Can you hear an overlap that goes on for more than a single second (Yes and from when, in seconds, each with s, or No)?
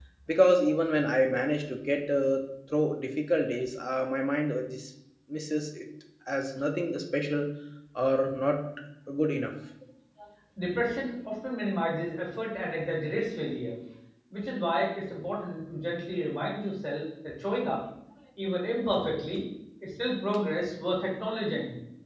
No